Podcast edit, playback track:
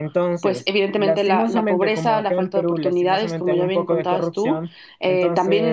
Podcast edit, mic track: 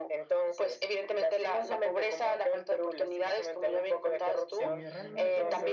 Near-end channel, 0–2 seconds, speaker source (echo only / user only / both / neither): echo only